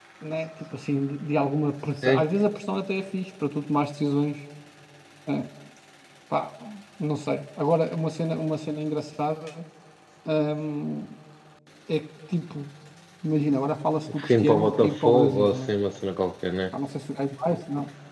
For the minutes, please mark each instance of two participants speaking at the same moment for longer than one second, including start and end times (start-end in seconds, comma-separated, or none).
14.2-15.6